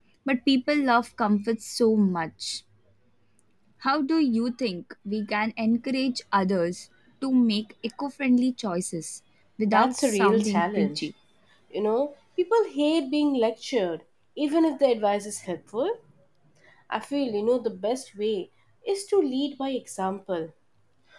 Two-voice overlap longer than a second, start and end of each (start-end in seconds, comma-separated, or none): 9.7-11.0